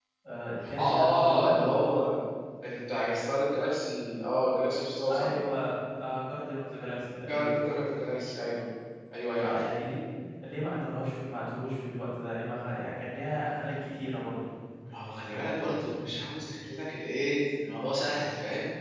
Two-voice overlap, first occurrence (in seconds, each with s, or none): 0.8 s